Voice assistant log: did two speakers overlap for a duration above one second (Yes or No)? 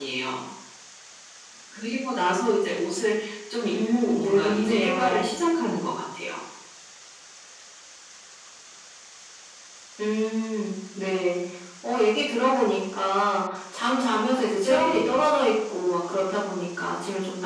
Yes